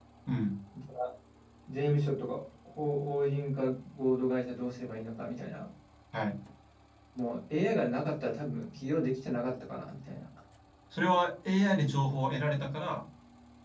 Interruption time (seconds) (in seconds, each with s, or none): none